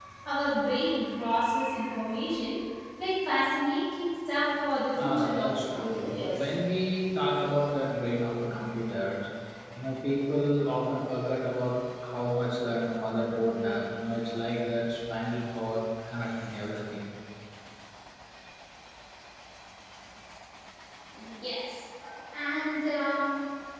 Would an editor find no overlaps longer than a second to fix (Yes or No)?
No